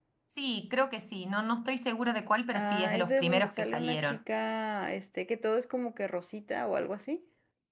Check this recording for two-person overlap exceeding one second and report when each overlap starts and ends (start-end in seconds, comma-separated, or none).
2.5-4.2